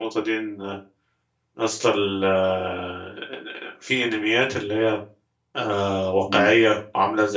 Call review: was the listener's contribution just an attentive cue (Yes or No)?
Yes